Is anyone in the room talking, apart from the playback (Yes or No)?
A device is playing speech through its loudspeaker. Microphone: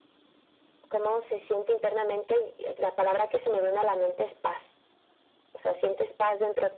No